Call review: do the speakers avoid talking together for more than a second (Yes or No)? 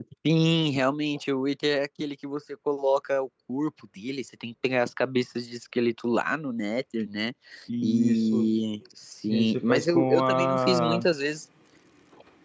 No